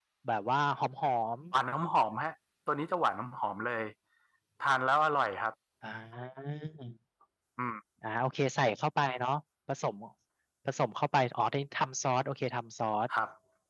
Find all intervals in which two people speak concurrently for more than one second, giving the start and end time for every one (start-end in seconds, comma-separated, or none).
none